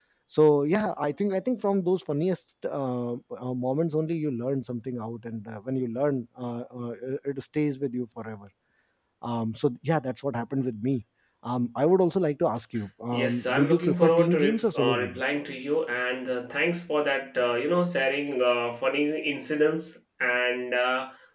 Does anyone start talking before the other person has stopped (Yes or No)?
Yes